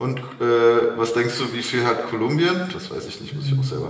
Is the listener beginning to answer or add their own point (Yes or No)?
Yes